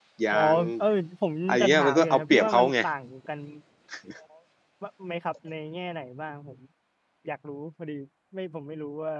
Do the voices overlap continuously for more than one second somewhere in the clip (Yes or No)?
Yes